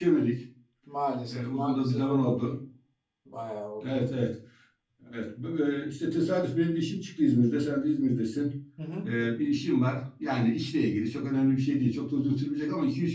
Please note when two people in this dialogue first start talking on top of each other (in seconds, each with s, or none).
1.3 s